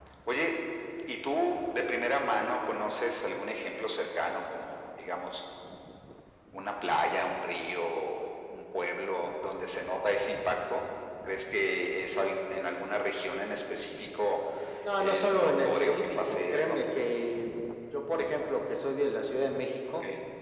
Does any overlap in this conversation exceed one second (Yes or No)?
Yes